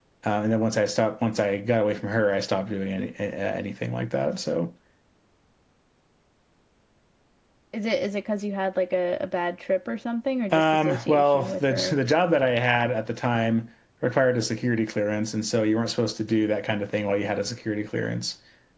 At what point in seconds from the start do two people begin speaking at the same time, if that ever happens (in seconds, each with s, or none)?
10.5 s